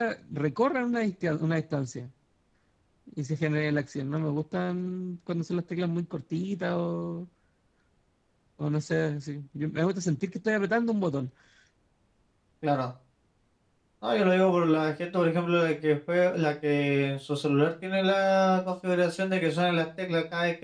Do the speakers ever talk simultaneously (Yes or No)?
No